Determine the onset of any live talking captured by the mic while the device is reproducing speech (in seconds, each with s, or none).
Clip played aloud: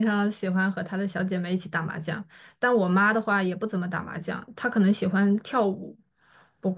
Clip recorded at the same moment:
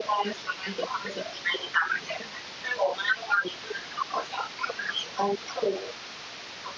none